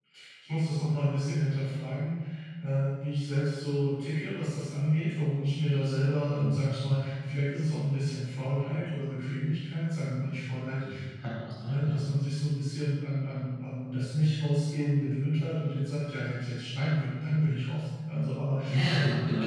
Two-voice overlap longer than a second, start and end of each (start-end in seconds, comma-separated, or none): none